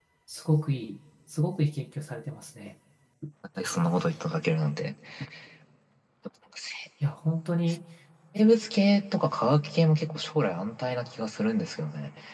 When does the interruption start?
none

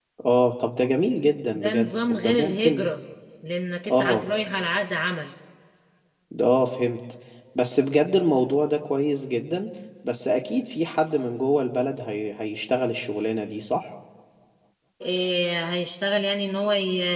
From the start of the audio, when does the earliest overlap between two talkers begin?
1.5 s

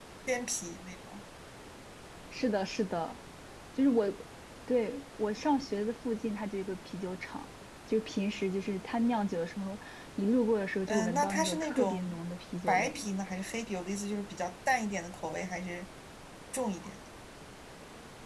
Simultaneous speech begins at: 10.9 s

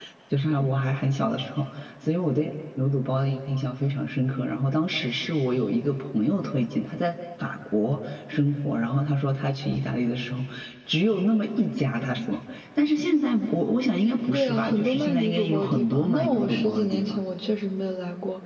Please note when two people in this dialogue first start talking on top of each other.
14.3 s

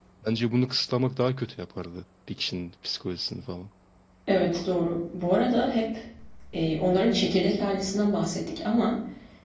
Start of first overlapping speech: none

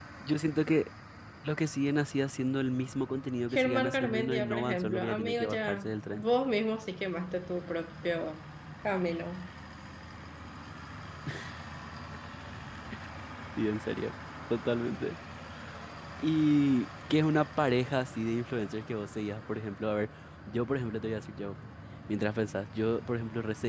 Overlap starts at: 3.5 s

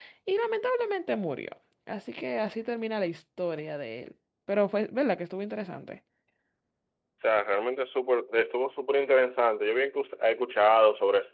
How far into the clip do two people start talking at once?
none

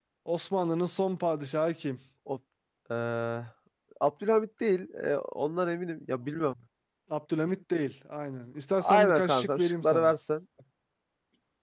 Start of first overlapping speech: 8.8 s

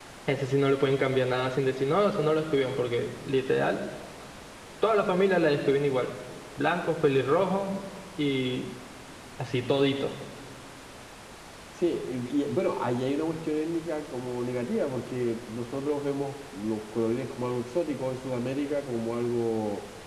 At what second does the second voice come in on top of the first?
none

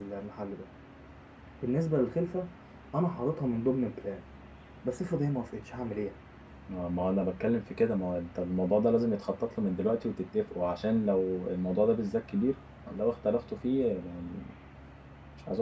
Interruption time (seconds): none

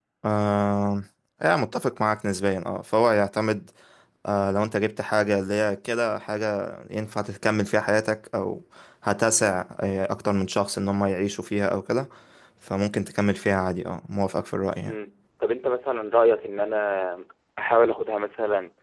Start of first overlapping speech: none

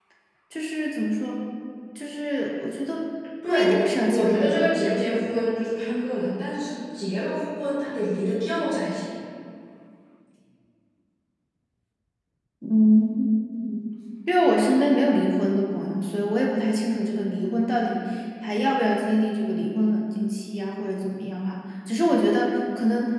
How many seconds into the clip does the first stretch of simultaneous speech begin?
3.4 s

